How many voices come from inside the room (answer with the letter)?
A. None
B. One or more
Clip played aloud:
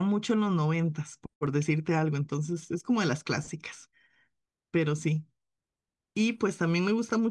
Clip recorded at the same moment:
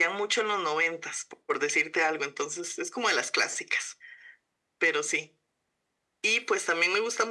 A